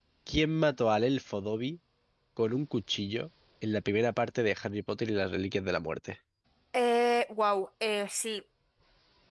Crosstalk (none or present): none